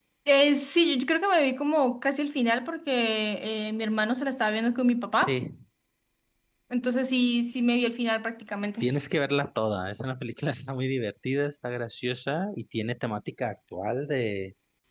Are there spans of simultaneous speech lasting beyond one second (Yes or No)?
No